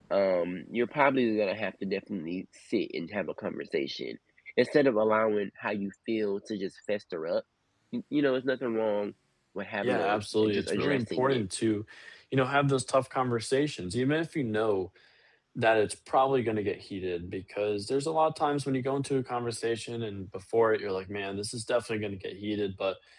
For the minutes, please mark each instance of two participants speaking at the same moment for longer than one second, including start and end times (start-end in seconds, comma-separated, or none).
9.8-11.4